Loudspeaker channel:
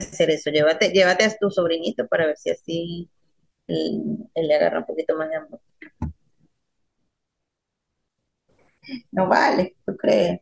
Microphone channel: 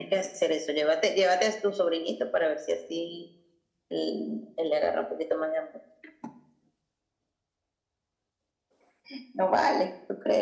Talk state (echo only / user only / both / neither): echo only